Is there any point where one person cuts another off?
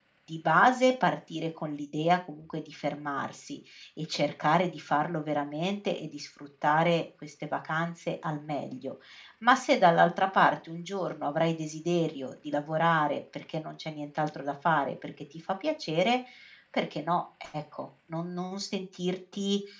No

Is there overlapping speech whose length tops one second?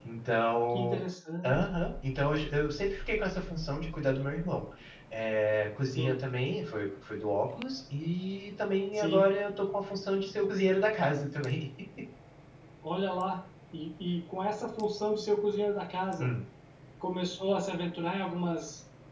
No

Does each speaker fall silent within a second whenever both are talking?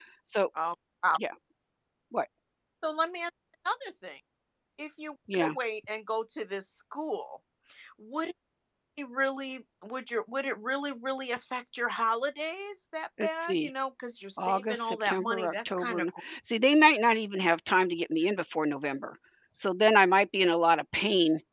No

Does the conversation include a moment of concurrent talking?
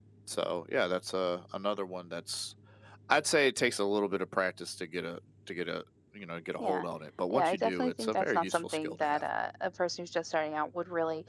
Yes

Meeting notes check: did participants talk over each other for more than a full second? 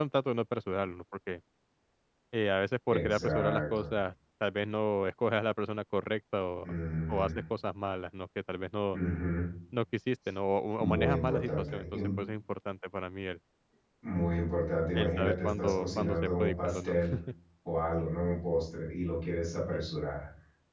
Yes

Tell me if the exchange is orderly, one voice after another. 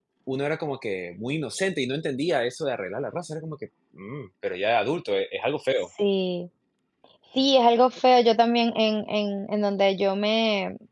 Yes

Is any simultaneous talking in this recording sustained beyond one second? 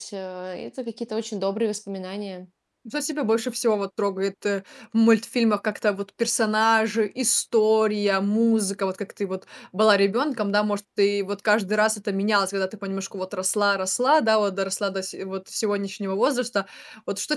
No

